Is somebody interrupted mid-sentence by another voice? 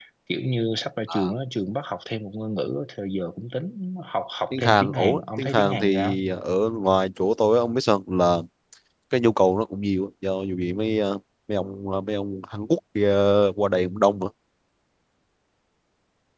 Yes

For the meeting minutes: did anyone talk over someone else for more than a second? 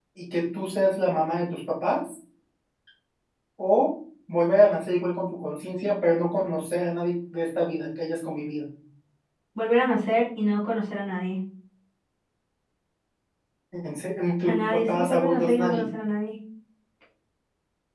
Yes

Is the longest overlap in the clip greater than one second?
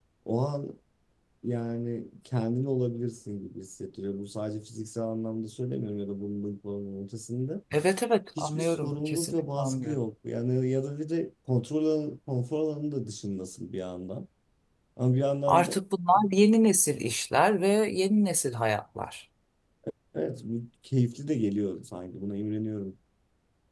Yes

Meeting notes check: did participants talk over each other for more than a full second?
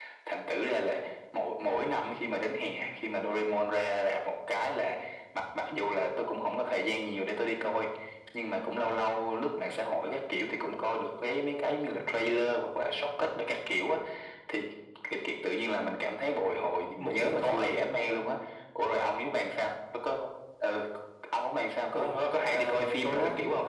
Yes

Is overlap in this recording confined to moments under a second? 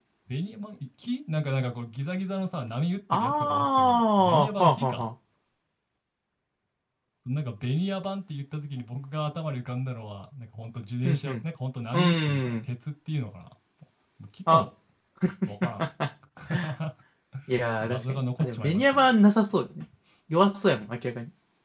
No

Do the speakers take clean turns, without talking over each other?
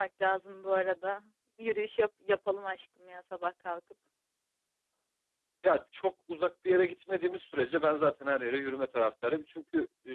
Yes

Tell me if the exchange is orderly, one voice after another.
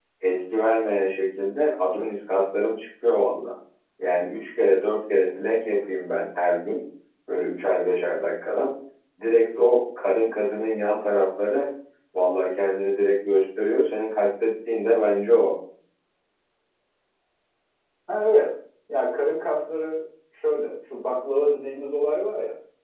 Yes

